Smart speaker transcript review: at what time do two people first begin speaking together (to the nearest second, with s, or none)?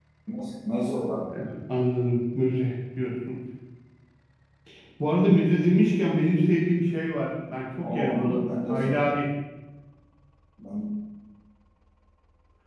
8 s